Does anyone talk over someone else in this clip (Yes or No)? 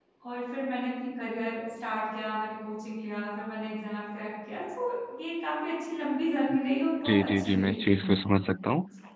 Yes